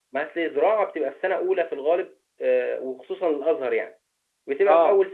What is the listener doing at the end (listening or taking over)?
listening